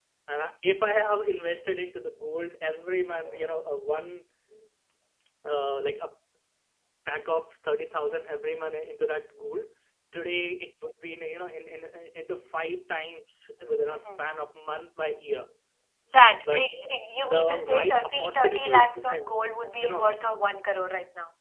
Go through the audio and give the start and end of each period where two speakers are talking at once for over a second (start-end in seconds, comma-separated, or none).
17.2-19.2